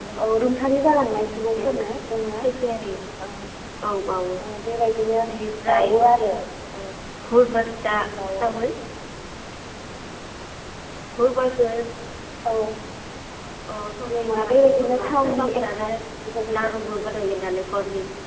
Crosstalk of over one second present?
Yes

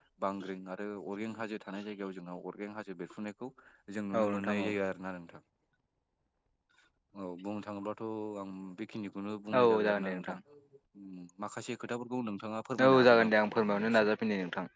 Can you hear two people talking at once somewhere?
Yes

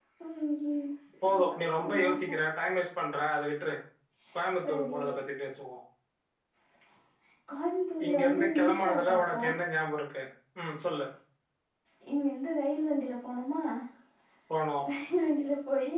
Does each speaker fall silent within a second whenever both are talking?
No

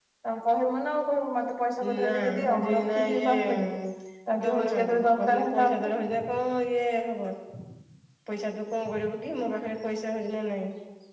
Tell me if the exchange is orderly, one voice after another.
No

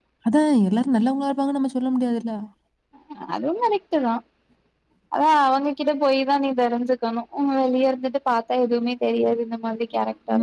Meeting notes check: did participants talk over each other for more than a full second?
No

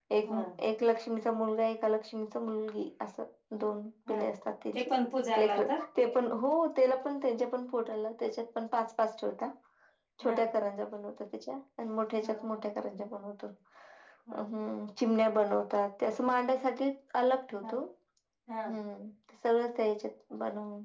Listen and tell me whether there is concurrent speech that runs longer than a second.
No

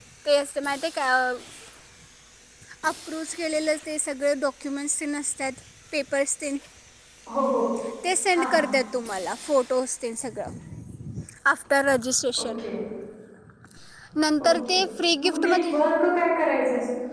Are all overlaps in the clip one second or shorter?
Yes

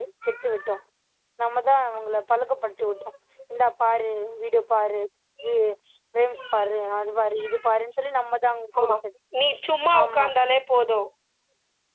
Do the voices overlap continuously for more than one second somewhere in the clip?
No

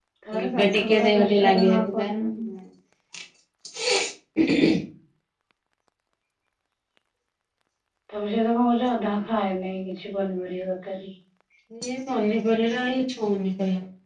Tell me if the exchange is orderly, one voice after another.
No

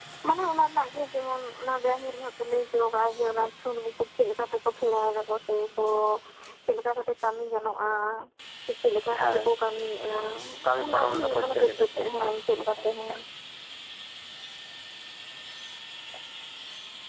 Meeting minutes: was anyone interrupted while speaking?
Yes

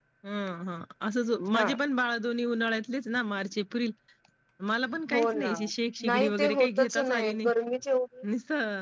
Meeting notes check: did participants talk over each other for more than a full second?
Yes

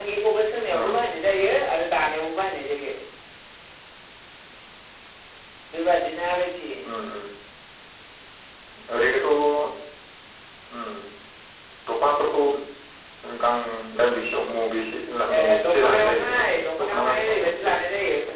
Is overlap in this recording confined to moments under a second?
No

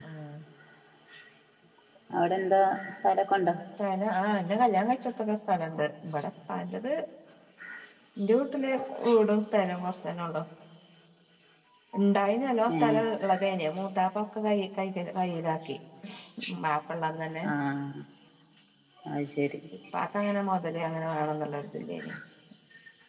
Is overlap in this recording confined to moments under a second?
Yes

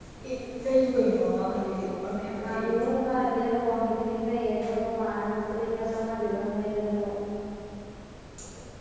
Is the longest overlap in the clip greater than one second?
No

